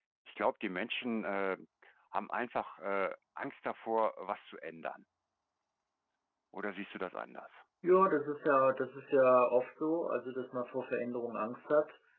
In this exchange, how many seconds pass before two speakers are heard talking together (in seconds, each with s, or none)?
none